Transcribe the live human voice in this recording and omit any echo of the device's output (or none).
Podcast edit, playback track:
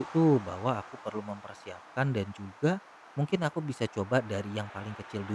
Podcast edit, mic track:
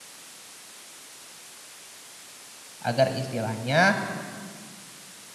agar istilahnya